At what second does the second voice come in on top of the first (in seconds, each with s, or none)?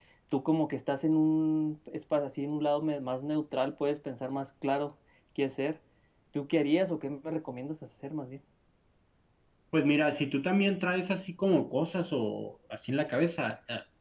none